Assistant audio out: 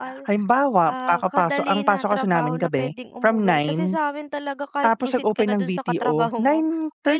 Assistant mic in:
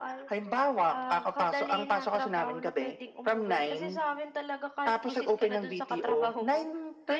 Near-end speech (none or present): none